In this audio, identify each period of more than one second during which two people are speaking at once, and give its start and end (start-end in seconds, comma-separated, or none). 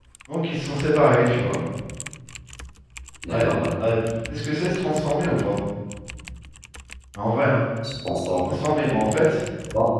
none